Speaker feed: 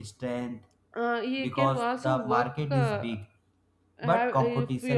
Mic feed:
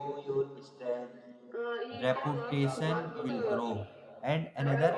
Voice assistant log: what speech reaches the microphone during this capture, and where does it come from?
both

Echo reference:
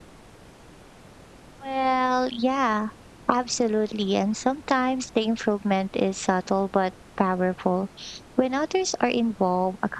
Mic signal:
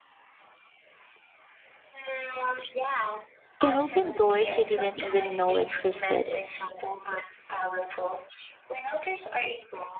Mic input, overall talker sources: both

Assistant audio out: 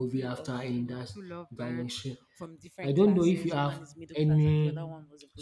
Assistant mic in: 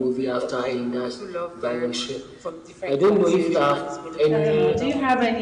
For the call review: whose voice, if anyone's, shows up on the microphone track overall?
both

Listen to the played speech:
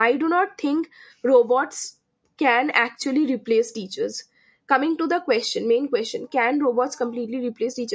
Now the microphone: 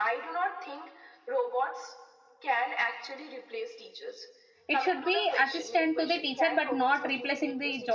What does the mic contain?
both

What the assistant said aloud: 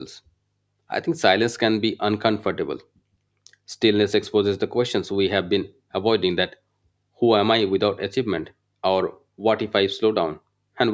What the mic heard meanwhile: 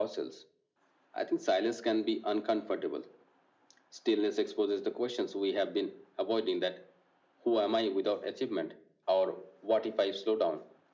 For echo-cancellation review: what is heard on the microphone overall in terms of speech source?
echo only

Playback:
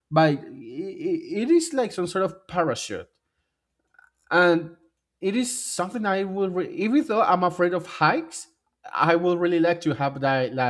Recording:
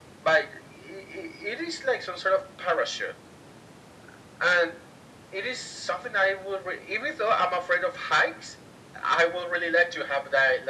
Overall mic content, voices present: echo only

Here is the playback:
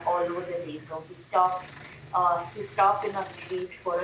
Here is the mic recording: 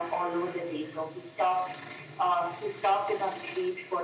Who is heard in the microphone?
echo only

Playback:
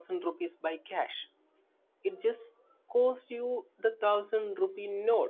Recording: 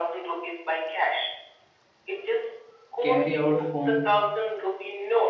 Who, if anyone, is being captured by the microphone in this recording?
both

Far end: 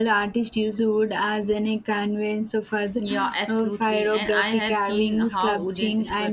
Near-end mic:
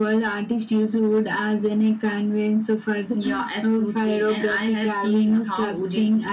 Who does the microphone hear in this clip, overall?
echo only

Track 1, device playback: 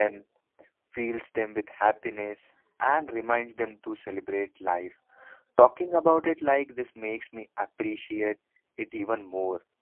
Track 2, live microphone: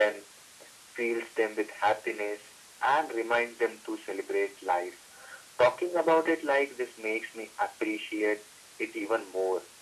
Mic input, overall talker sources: echo only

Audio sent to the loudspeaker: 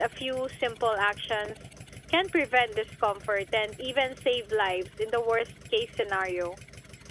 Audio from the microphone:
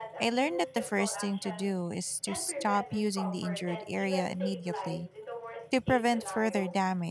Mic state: both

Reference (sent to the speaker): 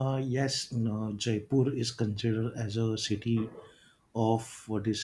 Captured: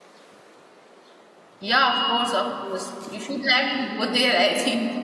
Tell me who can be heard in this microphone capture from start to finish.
user only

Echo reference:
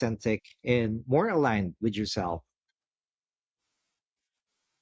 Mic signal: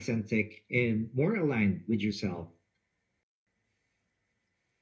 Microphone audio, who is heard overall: echo only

